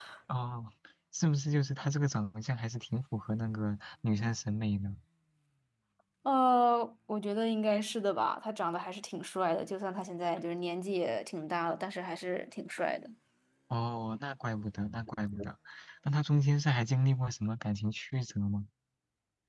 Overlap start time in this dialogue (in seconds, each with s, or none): none